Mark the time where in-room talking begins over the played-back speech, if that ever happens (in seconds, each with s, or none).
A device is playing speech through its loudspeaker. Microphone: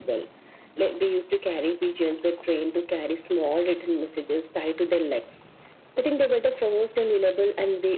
none